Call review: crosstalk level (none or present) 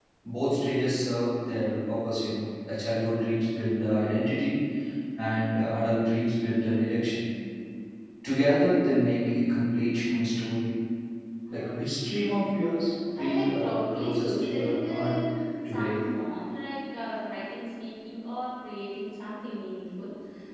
present